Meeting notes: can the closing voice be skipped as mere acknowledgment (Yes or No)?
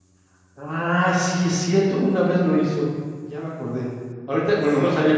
Yes